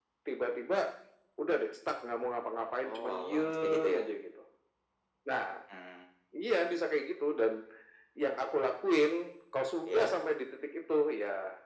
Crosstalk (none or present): present